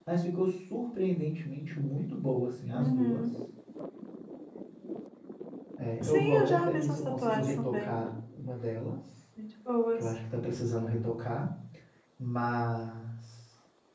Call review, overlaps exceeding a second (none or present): present